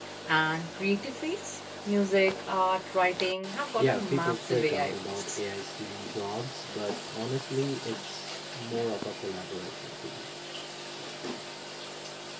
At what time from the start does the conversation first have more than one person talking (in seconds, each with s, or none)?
3.8 s